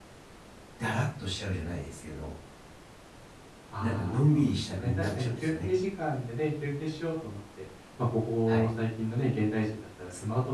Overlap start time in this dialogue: 3.8 s

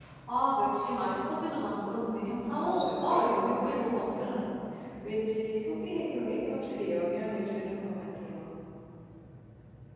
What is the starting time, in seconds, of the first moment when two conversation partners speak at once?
2.4 s

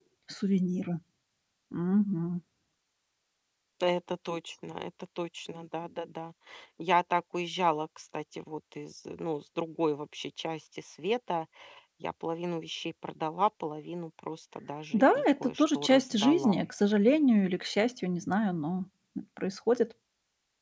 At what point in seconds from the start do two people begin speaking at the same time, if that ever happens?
14.9 s

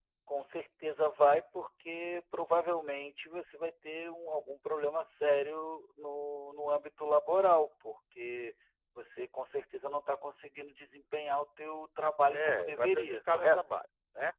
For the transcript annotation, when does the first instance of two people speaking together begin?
12.3 s

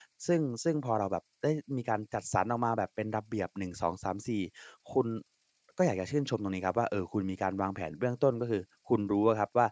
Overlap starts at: none

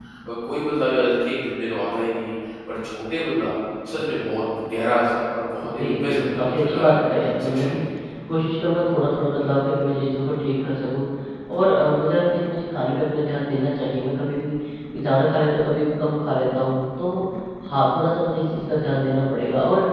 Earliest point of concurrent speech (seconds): 5.7 s

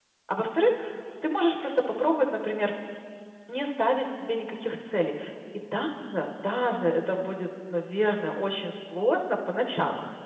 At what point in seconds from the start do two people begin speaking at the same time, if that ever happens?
none

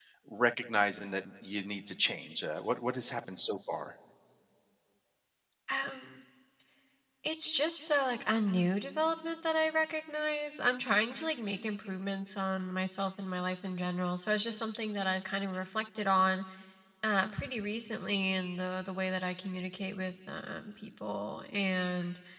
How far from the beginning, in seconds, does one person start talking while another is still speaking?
none

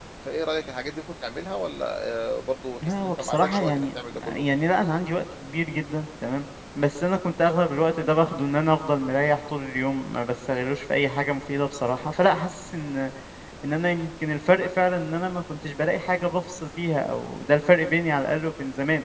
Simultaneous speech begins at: 2.8 s

